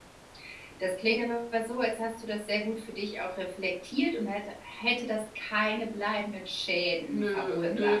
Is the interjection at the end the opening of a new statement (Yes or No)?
Yes